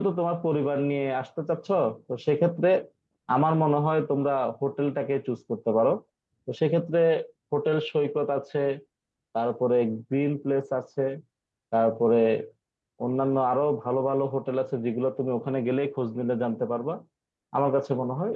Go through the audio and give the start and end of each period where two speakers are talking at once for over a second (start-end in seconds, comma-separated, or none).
none